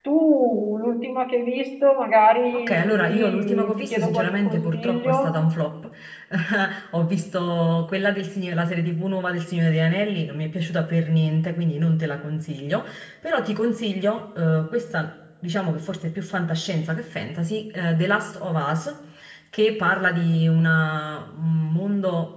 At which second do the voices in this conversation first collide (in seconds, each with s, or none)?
2.5 s